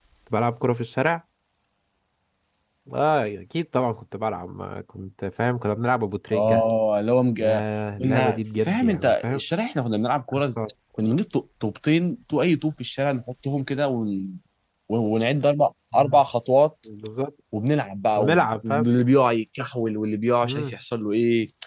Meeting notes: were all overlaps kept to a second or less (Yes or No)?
No